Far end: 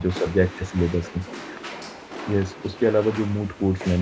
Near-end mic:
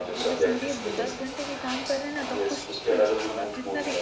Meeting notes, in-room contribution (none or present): present